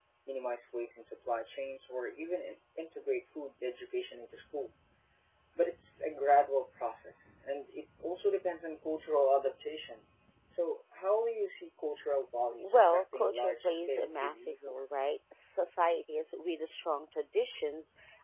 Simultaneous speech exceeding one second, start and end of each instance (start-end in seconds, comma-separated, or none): 12.6-15.1